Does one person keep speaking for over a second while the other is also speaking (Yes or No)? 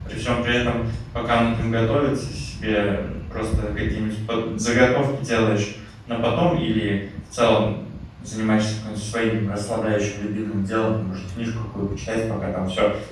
No